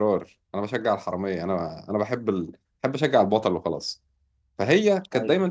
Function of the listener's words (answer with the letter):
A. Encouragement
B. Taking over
A